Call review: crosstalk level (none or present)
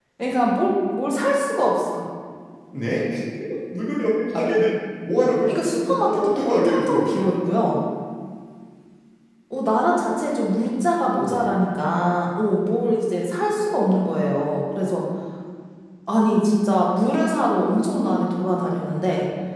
present